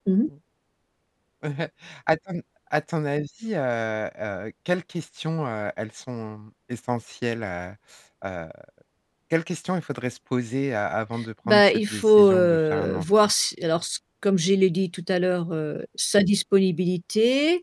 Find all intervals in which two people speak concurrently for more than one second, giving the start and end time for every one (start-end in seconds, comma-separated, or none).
11.5-13.0